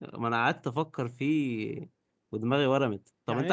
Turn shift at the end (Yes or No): No